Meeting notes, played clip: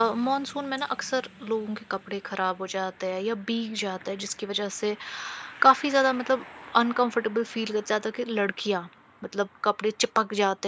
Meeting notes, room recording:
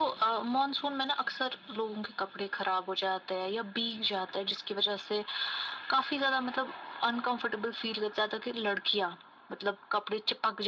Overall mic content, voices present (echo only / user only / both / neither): echo only